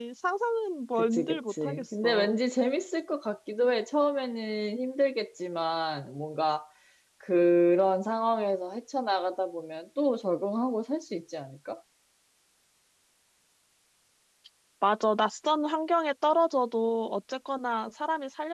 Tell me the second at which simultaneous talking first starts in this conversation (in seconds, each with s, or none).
1.0 s